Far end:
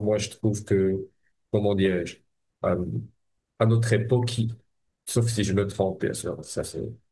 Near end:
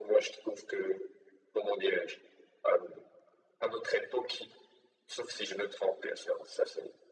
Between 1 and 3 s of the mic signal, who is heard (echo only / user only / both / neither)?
echo only